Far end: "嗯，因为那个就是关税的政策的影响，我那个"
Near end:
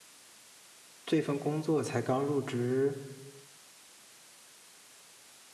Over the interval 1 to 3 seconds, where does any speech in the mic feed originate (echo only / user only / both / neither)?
user only